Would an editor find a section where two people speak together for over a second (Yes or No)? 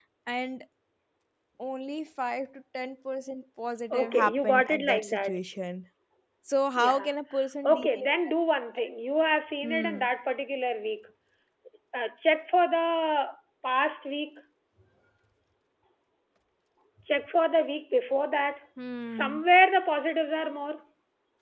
Yes